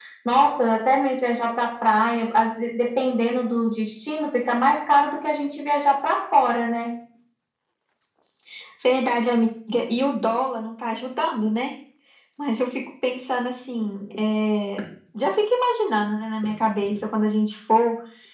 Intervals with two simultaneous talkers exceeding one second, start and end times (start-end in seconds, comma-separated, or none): none